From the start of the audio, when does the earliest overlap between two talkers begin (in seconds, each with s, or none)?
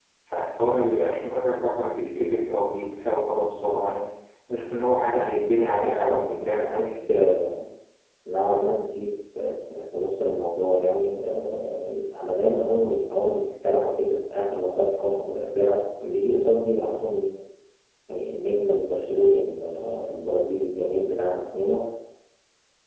5.7 s